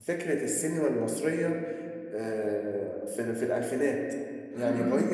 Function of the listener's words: listening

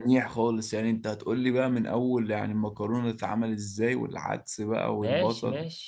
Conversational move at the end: taking over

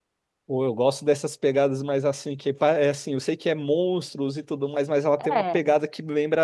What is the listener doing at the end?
listening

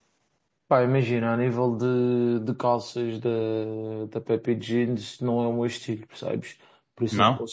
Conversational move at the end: listening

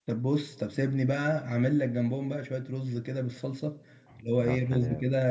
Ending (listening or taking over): listening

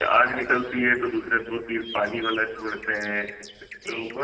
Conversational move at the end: listening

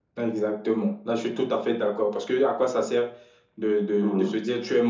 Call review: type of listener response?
listening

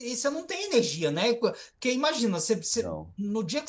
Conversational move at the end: listening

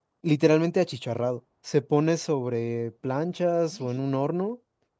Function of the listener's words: listening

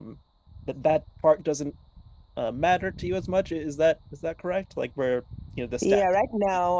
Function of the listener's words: taking over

